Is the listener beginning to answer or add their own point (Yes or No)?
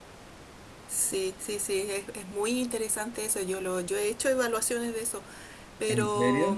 No